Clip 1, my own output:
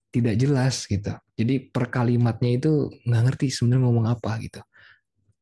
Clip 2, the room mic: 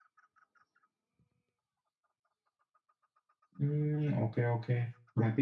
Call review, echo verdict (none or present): none